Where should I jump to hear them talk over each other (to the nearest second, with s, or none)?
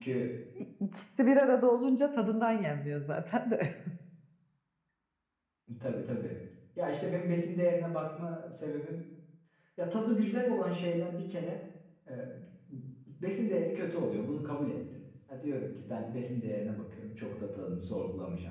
none